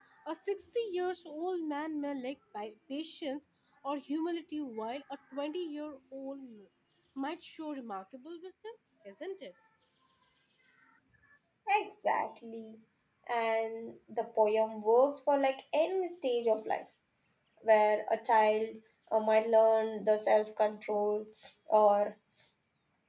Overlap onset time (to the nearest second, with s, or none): none